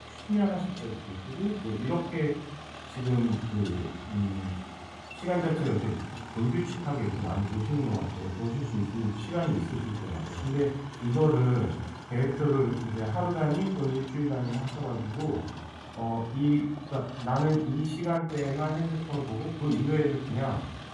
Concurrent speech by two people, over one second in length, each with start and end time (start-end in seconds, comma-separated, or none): none